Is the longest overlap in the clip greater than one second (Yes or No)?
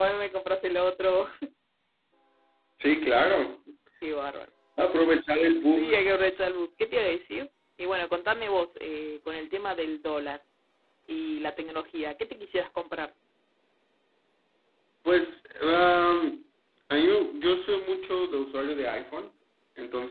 No